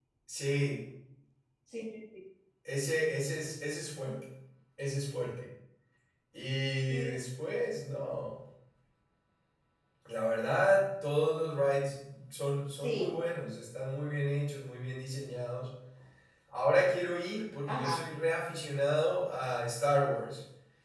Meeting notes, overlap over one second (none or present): none